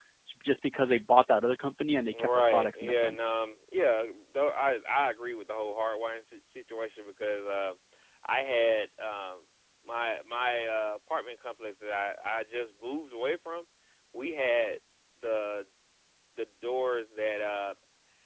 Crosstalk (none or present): present